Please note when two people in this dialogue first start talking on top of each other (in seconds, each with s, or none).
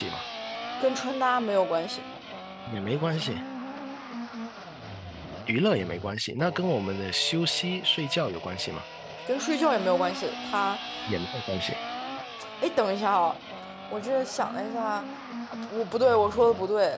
none